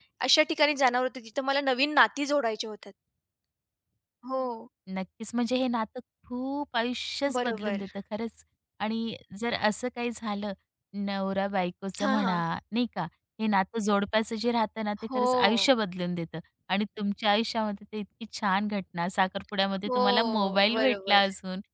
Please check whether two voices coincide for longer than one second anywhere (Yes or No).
Yes